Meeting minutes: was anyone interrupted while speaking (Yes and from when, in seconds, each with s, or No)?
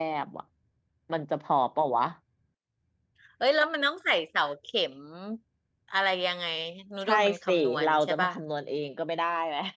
Yes, from 7.1 s